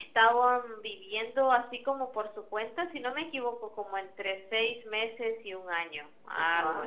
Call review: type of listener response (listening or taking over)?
taking over